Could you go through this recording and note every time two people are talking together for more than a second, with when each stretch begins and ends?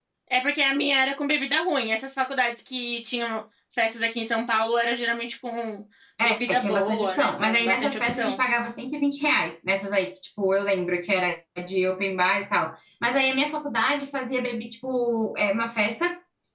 6.5-8.4

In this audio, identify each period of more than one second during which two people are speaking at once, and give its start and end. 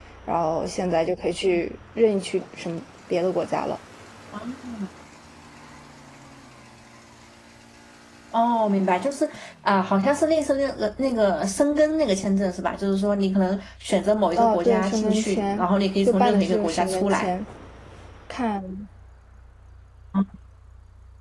14.4-15.6, 16.1-17.3

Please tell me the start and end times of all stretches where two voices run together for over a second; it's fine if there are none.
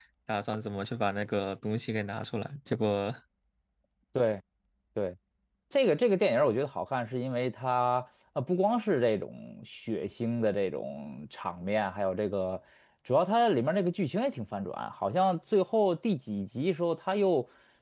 none

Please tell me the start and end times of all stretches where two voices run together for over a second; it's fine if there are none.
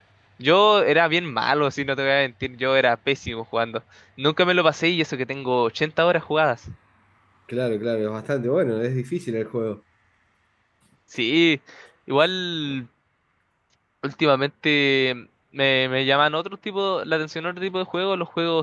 none

